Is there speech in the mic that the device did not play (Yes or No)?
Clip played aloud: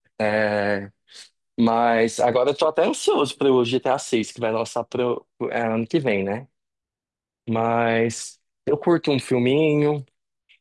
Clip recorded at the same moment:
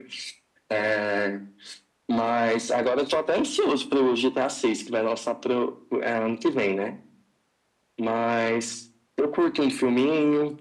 No